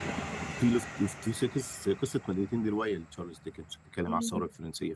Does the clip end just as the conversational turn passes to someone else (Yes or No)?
No